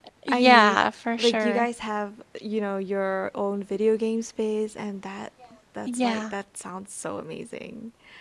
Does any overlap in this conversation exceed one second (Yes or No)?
No